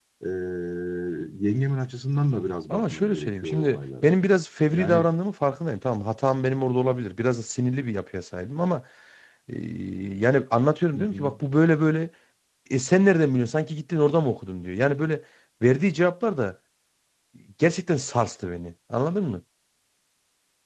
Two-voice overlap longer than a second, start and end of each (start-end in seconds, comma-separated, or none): 2.7-4.1